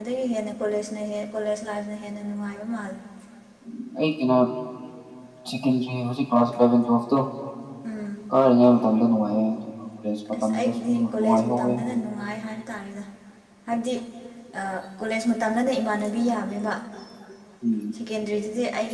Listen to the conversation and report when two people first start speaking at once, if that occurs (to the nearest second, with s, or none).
10 s